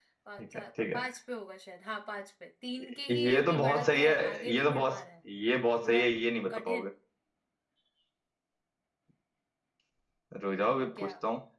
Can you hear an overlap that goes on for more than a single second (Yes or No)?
Yes